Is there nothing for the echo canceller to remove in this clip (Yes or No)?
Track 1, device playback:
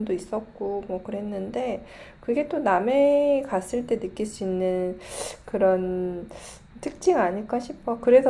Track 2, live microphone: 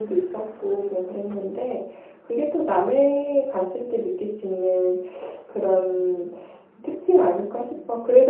No